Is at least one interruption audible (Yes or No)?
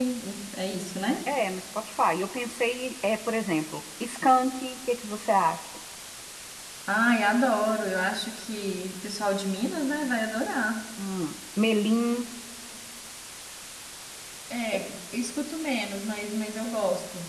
No